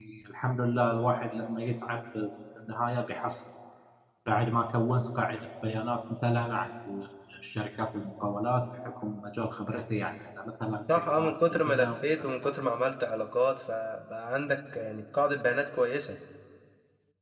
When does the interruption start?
10.9 s

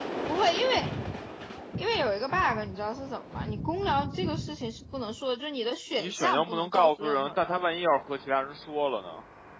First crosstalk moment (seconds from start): 6.0 s

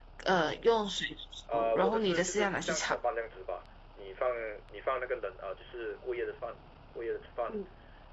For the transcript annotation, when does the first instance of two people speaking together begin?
1.5 s

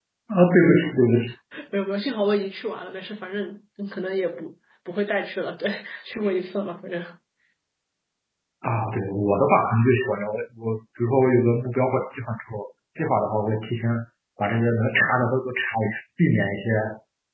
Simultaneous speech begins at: none

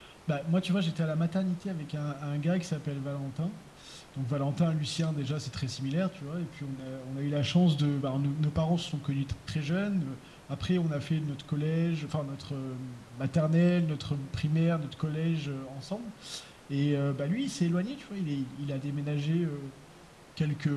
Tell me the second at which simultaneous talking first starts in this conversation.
none

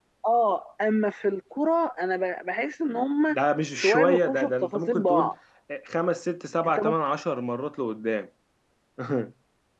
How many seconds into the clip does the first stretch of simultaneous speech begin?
3.8 s

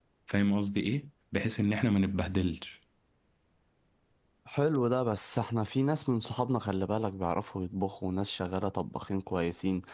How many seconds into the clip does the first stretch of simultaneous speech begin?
none

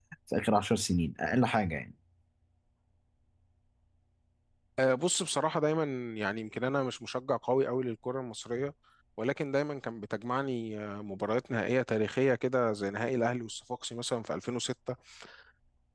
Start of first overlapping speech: none

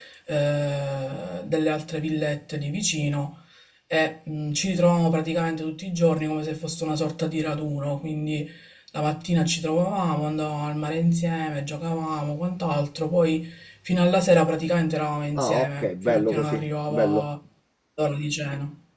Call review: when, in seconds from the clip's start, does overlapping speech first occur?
15.3 s

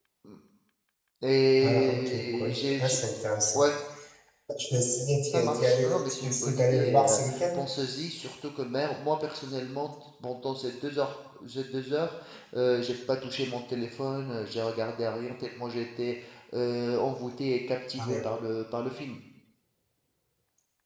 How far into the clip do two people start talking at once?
1.6 s

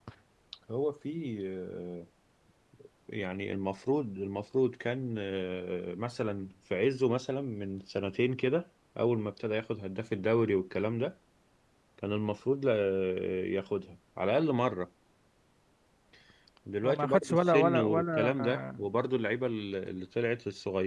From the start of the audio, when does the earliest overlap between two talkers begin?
16.8 s

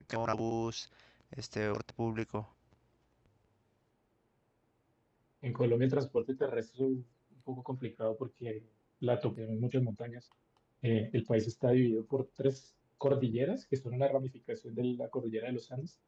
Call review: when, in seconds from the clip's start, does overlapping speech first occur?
none

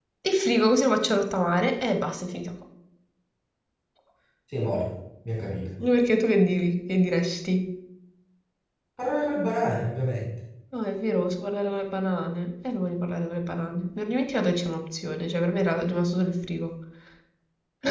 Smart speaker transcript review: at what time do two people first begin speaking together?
none

